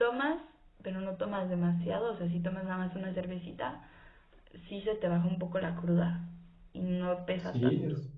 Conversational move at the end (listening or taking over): taking over